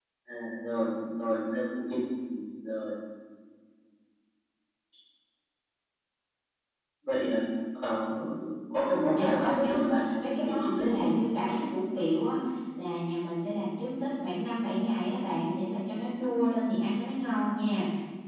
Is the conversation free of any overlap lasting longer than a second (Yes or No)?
No